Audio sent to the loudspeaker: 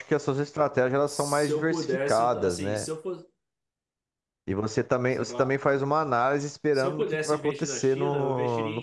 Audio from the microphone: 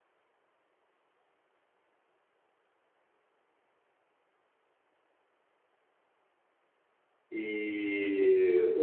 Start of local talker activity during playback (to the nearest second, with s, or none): 7 s